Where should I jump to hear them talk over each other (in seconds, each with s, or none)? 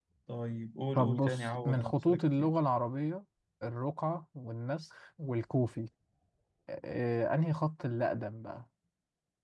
1.0 s